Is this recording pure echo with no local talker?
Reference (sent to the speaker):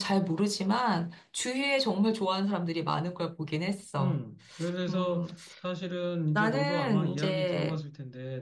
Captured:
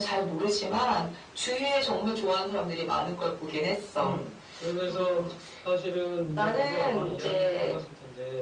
Yes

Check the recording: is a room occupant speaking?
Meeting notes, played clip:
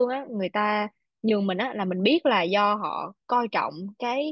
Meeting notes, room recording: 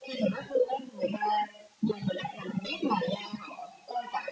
No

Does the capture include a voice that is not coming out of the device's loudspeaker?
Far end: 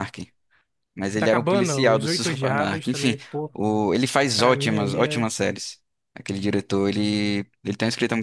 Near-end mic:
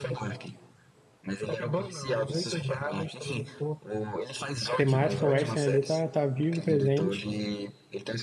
Yes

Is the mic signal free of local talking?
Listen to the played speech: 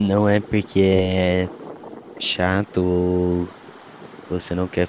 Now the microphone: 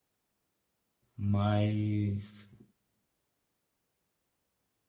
No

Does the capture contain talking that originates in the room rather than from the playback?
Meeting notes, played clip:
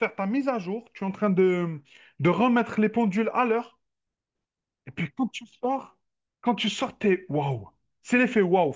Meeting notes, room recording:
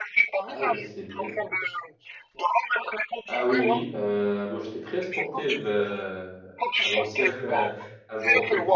Yes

